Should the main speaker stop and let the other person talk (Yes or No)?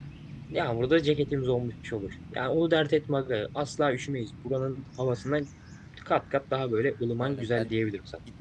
Yes